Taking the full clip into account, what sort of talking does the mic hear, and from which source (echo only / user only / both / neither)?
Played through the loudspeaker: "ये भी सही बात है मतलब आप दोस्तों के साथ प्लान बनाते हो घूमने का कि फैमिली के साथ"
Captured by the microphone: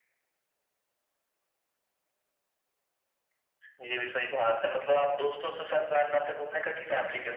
echo only